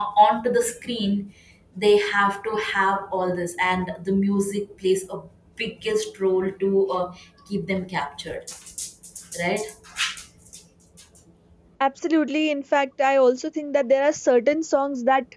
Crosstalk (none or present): none